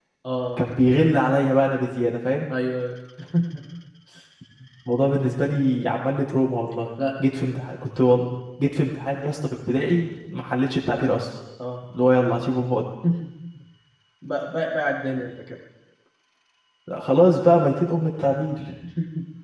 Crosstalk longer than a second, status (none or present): none